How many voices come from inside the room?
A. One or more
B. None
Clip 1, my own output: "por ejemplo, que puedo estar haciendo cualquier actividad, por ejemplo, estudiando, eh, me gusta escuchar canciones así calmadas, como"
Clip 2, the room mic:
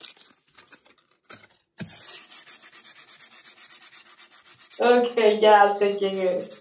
A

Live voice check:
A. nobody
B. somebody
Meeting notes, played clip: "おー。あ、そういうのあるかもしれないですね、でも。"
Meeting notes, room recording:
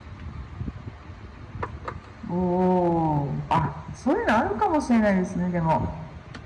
A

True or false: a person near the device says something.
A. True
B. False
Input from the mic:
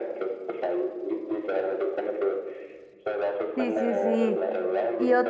A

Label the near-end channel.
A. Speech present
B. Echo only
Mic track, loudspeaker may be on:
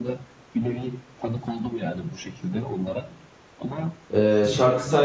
A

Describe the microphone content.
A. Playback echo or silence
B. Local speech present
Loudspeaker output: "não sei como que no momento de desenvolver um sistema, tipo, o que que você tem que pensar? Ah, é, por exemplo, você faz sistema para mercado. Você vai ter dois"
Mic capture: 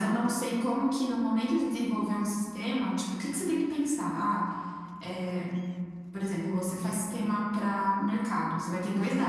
A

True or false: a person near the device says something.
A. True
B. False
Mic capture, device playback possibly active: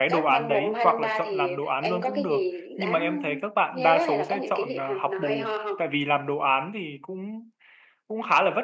A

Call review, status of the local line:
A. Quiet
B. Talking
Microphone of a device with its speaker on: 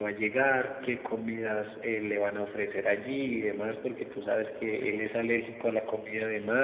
B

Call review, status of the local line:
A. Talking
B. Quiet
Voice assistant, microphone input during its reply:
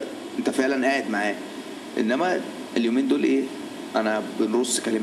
B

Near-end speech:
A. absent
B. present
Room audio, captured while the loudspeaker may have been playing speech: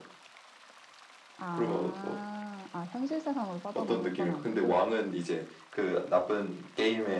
B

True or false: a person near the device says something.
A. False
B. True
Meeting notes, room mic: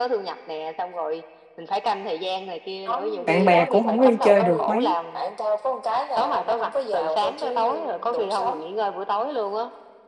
B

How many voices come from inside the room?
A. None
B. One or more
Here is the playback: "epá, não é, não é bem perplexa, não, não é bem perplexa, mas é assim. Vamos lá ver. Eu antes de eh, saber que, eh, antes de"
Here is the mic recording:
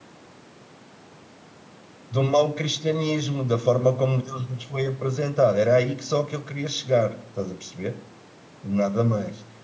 B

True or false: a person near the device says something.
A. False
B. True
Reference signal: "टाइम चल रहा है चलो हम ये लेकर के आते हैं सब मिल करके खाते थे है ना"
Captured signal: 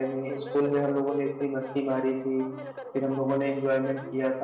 B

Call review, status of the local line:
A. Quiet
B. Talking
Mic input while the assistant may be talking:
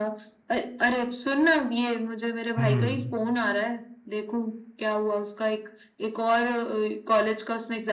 B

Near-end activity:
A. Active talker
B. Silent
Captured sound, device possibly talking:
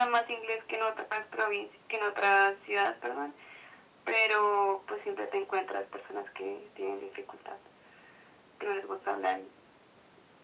B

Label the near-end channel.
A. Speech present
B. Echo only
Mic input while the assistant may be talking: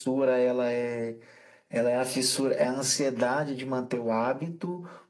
B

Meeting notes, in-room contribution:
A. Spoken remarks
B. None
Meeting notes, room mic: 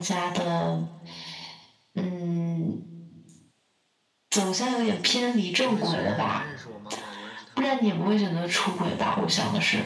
A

